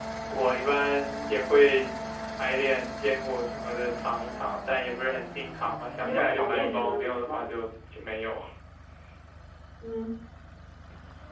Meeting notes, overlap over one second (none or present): present